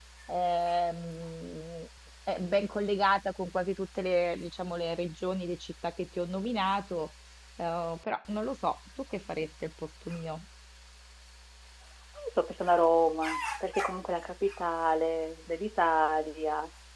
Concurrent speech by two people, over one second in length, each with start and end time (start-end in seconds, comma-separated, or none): none